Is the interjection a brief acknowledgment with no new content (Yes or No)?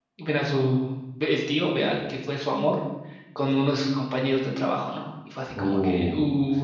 No